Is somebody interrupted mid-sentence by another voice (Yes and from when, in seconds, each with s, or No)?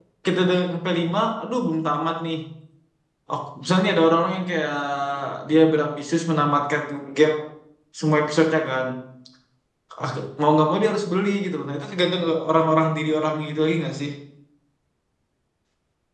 No